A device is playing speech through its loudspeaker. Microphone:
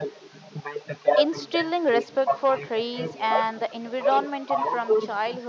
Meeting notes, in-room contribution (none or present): present